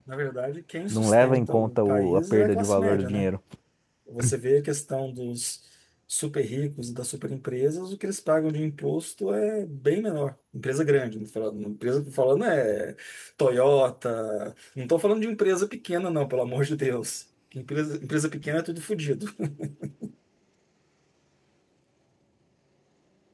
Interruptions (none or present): present